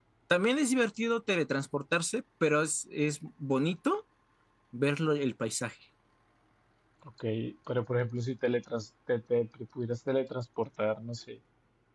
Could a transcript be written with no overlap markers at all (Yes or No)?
Yes